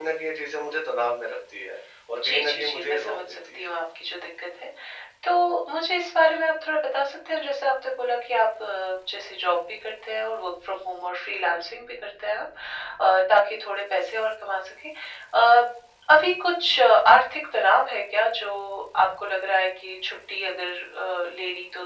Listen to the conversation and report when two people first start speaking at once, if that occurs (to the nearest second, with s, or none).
2 s